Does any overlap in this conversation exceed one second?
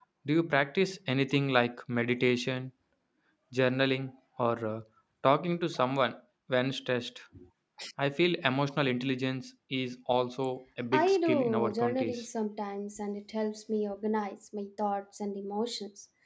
Yes, from 10.9 s

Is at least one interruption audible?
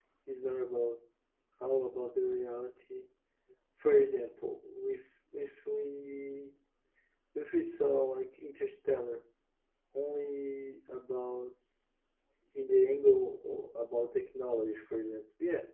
No

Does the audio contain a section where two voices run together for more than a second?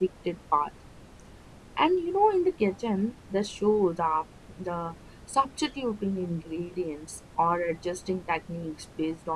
No

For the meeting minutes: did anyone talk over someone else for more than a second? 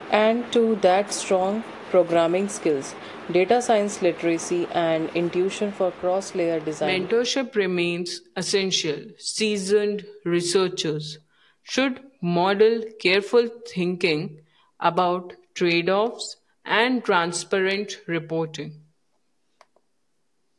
No

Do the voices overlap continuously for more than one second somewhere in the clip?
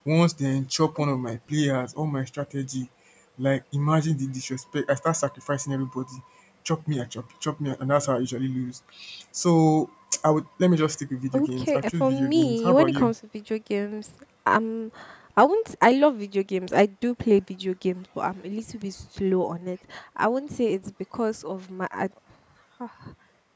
Yes, from 11.3 s

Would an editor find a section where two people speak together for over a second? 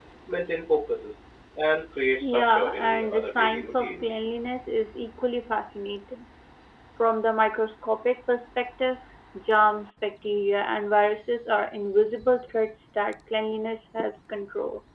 Yes, from 2.2 s

